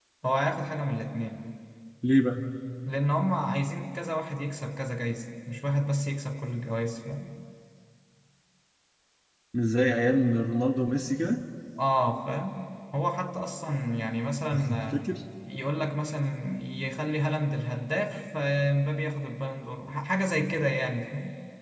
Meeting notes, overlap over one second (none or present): none